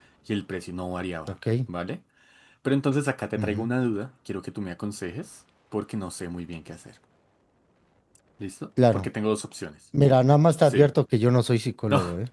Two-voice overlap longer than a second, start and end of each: none

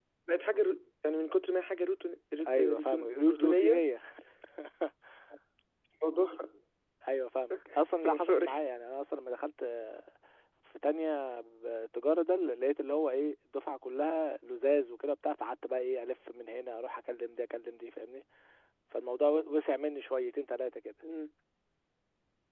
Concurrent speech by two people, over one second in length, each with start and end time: 2.5-3.8

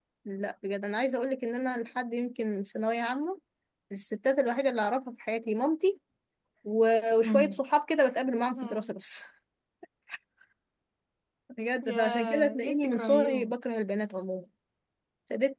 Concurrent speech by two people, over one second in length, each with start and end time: 11.9-13.5

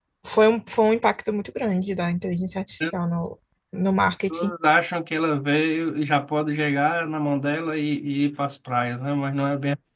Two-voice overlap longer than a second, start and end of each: none

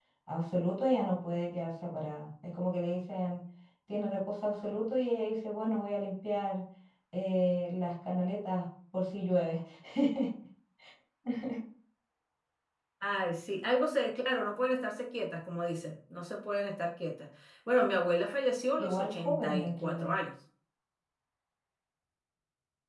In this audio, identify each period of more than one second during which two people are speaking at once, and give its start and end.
18.8-20.1

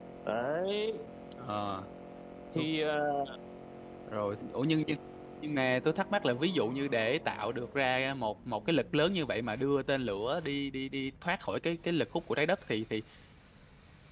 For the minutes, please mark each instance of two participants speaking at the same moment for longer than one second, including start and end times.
none

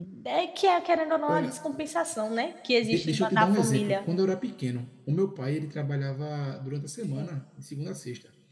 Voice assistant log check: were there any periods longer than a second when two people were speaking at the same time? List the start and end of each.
2.8-4.0

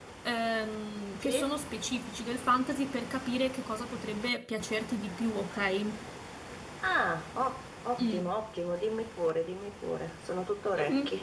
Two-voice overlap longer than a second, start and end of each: none

